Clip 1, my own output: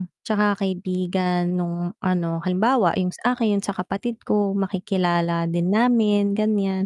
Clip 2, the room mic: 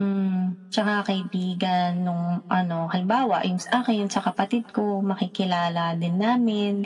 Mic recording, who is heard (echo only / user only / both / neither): echo only